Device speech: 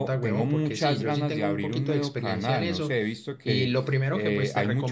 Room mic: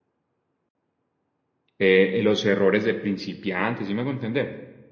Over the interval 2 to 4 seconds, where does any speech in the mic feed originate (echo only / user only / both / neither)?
user only